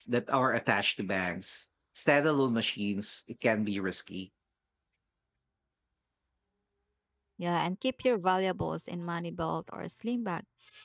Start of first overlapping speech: none

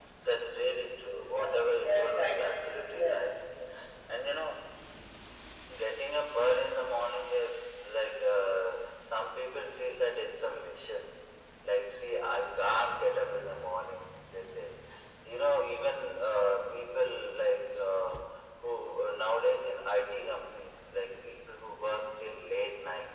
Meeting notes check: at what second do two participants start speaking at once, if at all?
1 s

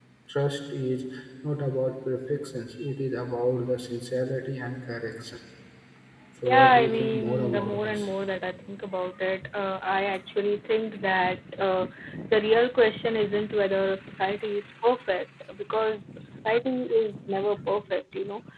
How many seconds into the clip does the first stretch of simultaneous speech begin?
7 s

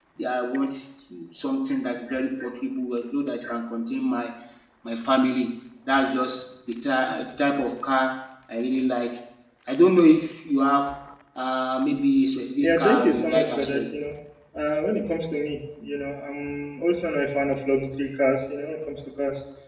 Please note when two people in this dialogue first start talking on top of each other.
13 s

